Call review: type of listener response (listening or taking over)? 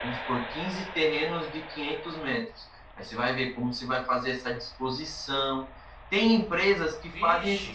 listening